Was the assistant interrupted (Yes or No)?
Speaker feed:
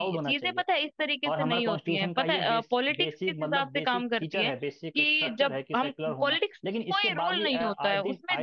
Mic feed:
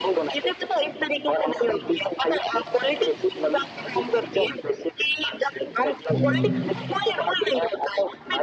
Yes